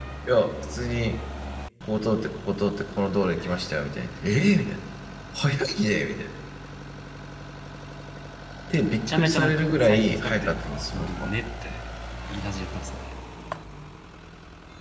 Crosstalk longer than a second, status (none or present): present